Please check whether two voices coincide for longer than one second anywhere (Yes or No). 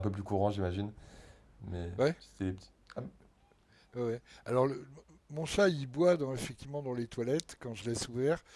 No